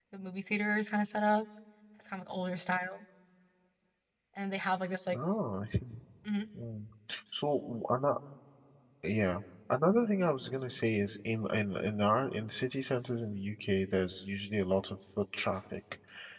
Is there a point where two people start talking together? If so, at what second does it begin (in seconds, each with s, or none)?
none